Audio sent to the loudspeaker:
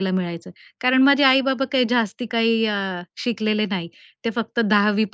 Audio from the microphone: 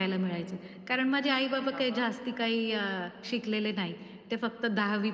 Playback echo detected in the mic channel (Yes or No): Yes